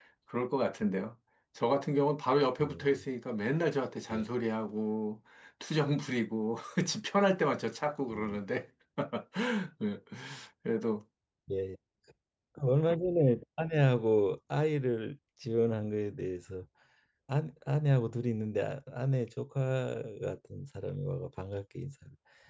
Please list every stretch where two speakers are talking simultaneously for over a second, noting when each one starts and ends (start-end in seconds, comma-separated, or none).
none